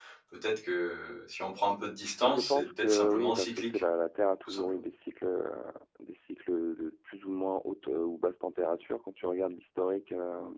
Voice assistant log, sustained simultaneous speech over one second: present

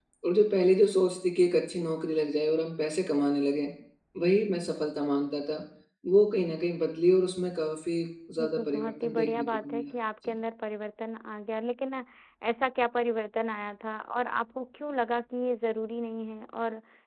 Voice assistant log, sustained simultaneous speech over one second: present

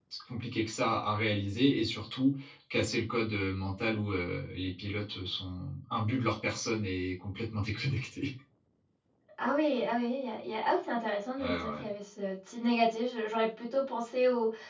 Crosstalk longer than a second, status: none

